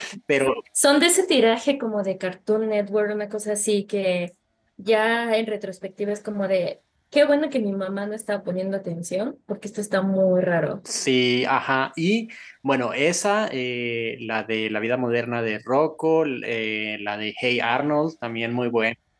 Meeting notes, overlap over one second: none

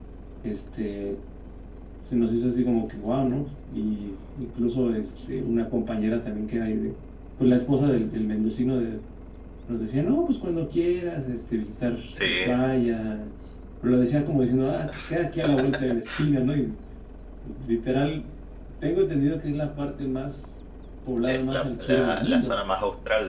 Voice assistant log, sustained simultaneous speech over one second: present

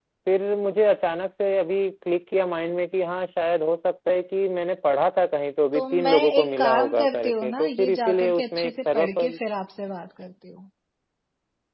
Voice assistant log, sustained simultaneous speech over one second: present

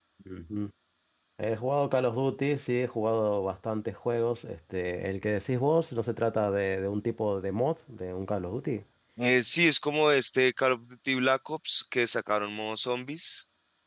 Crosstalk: none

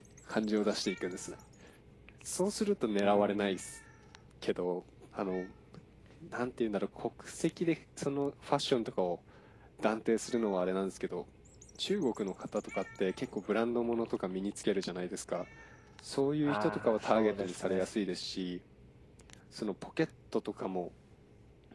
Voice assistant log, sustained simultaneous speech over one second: present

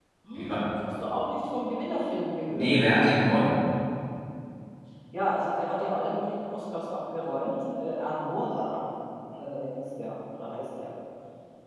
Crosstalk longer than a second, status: none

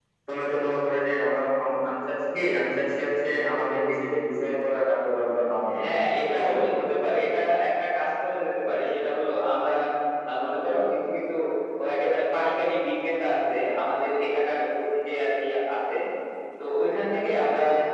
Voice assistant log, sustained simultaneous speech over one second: none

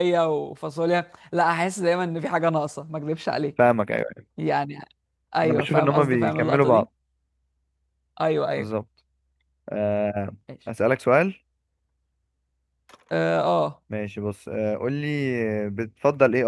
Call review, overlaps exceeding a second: present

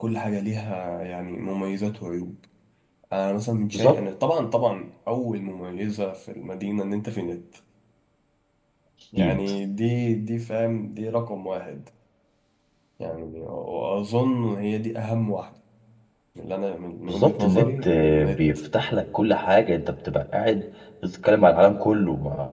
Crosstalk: present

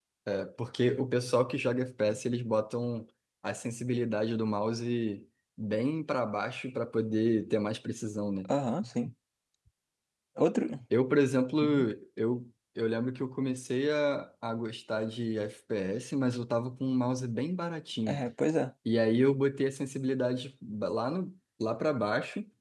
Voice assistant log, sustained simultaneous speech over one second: none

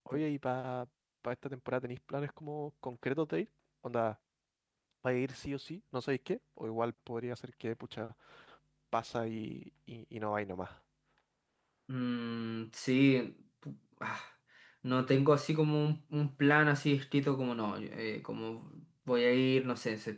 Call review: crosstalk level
none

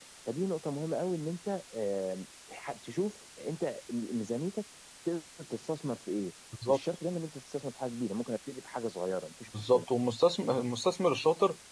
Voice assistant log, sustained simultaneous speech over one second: none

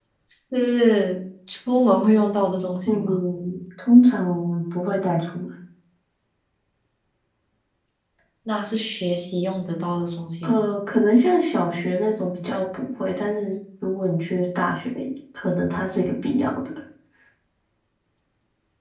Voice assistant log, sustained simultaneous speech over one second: none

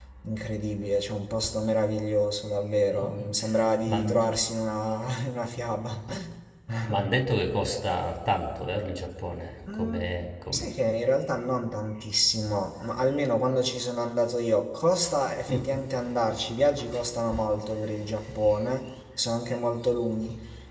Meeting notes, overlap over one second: none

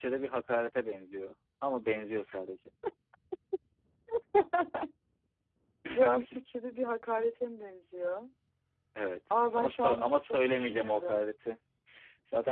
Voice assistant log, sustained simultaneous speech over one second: present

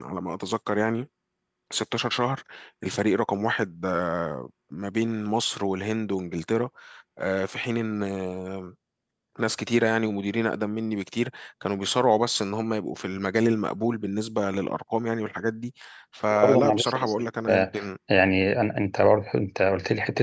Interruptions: present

